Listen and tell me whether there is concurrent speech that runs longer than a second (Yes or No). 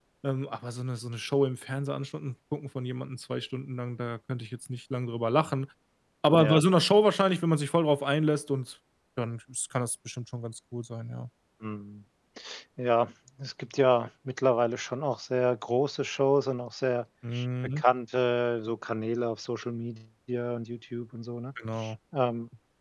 No